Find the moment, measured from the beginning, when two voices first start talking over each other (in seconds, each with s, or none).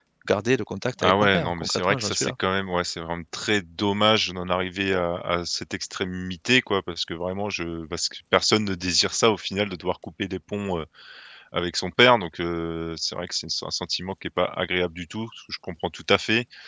1.0 s